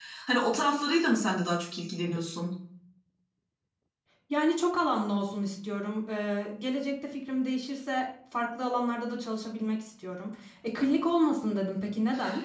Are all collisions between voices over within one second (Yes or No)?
Yes